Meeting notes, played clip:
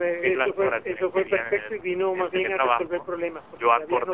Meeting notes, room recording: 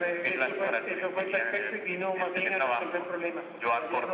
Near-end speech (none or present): none